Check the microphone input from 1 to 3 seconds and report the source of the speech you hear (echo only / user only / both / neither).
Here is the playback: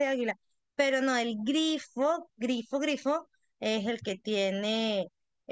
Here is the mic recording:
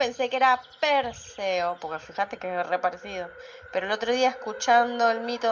user only